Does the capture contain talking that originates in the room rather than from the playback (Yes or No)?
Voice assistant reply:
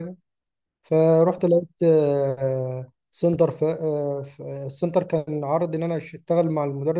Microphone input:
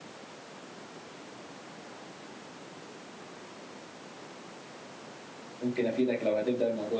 Yes